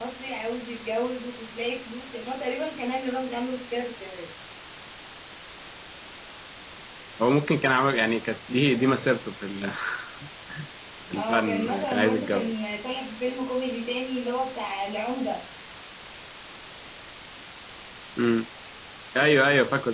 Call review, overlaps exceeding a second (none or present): present